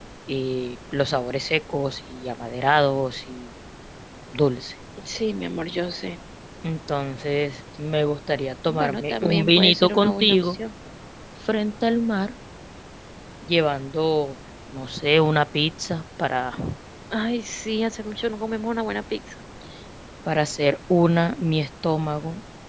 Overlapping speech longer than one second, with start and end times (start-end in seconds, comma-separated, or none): 8.7-10.6